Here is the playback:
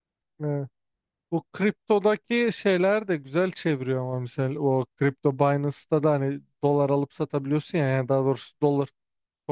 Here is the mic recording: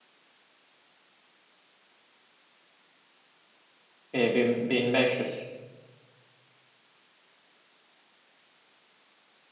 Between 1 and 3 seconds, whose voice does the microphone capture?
neither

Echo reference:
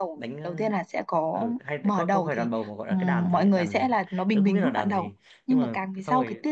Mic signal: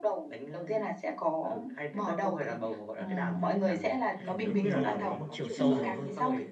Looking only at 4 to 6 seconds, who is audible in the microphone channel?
both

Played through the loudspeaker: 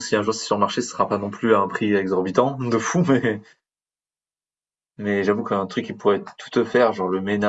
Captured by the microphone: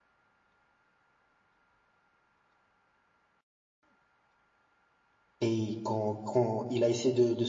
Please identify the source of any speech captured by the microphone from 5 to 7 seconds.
user only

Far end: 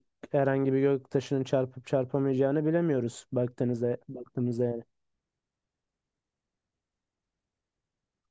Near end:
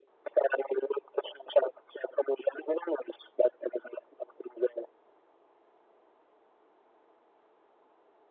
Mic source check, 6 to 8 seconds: neither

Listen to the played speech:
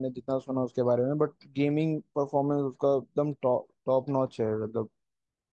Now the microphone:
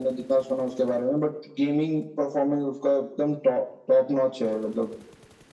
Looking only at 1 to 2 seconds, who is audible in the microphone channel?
echo only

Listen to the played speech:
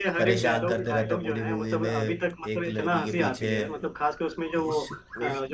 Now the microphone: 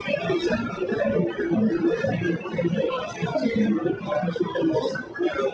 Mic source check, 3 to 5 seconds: echo only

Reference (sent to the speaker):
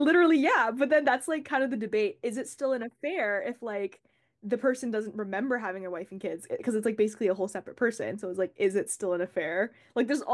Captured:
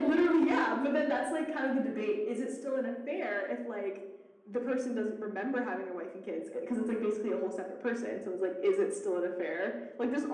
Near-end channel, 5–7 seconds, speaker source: echo only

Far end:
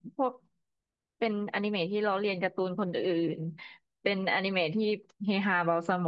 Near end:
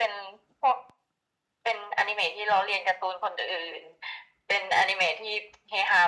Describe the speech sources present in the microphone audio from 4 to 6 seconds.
echo only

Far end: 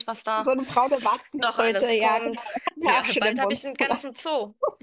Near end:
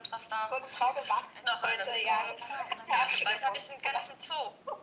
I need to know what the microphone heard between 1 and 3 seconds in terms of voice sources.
both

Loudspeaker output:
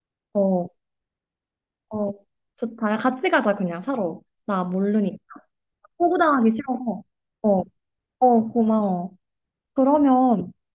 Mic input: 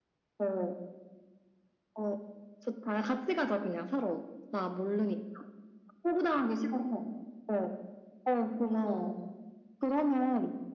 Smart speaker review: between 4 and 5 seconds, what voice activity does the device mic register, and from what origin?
echo only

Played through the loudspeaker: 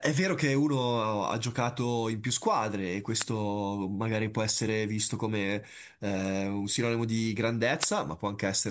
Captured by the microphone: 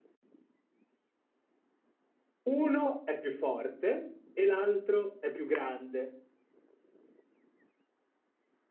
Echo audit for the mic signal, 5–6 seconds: user only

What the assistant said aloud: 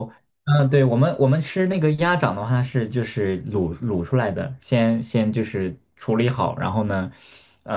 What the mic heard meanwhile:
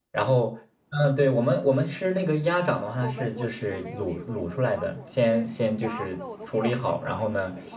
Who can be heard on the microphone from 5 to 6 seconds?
both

